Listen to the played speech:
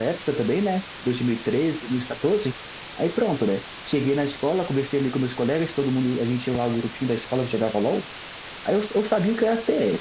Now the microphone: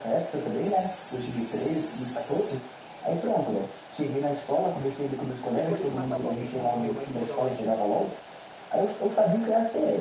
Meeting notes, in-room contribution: present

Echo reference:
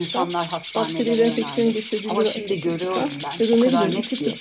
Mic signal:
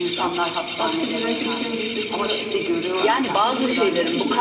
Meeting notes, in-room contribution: present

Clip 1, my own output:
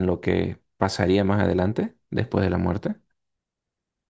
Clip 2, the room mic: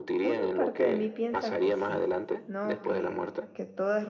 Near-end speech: present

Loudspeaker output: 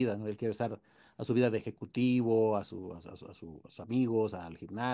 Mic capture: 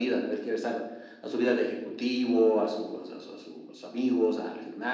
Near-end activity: none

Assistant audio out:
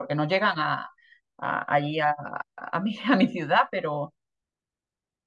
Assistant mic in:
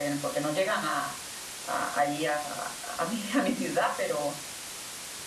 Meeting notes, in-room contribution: none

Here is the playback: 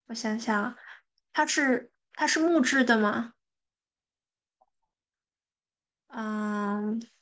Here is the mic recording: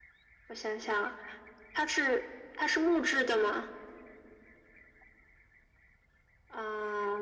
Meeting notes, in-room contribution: none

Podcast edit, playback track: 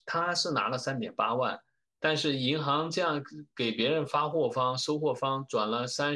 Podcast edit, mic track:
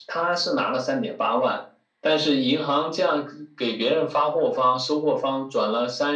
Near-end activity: none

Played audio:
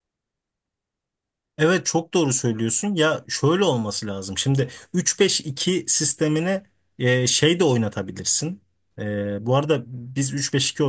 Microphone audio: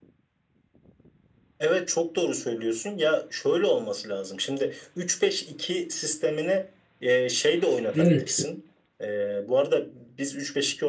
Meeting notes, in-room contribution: present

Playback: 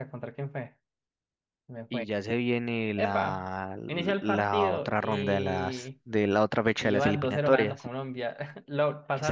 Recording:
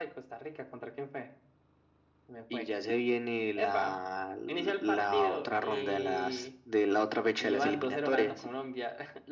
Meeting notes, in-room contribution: none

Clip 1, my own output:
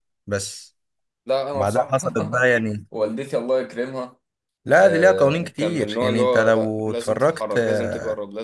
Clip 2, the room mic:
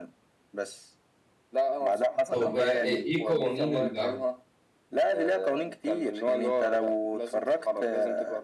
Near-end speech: present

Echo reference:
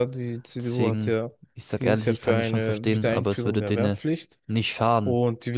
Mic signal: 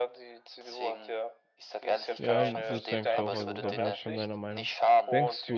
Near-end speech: present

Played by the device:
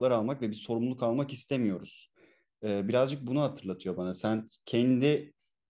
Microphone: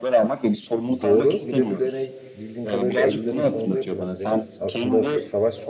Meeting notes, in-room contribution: present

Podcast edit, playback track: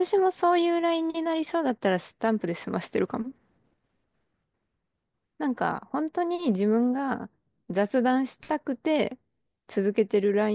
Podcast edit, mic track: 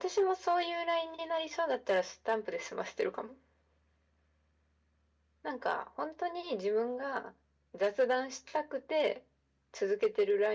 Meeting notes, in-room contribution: none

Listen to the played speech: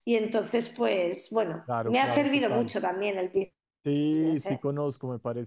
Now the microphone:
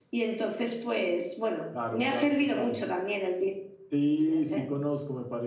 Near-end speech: none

